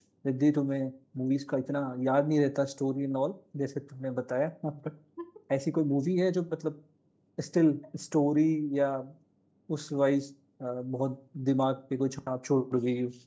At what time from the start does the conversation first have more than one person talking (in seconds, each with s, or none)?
none